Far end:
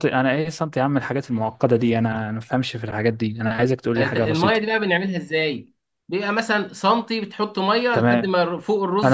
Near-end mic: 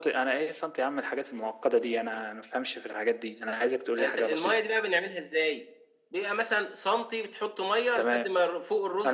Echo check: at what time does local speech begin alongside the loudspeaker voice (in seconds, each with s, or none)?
none